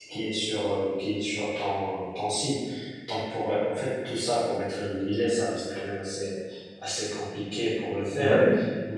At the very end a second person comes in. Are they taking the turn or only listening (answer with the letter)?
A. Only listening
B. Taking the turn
A